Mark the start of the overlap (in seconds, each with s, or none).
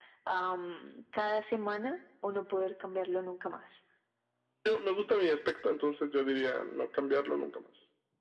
none